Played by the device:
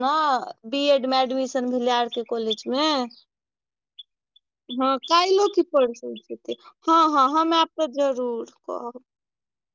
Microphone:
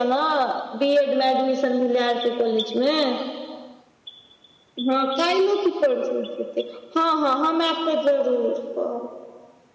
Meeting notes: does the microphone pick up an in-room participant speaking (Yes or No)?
No